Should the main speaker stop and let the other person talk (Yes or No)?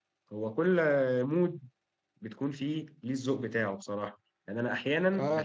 No